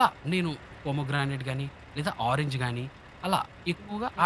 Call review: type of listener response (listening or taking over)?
taking over